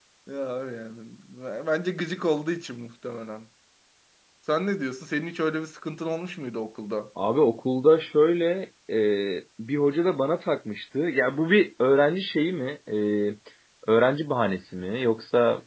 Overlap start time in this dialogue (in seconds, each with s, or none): none